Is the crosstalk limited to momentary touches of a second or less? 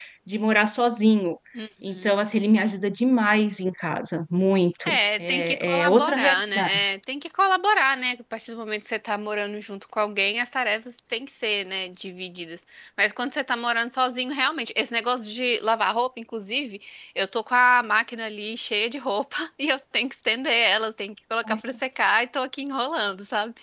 No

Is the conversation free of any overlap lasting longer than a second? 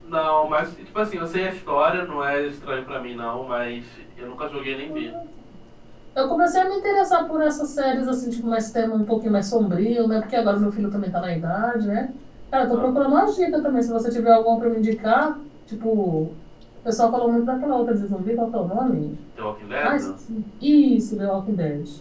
Yes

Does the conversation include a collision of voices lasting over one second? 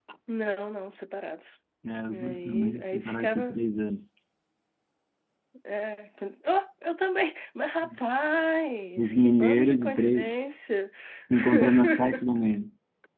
Yes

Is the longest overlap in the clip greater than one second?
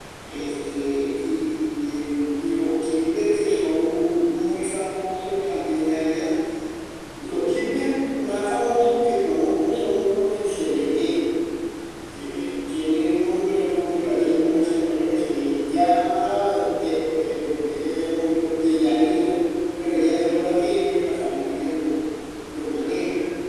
No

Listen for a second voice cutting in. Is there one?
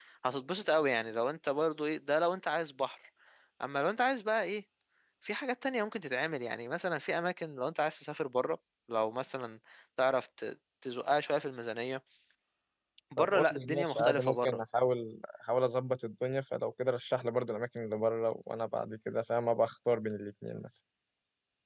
Yes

